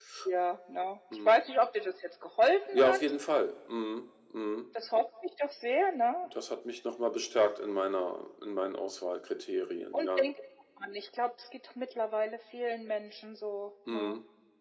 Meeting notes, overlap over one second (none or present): none